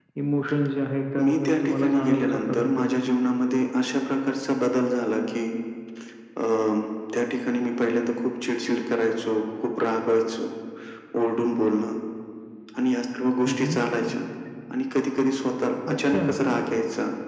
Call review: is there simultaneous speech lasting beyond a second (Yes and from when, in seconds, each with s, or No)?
Yes, from 1.2 s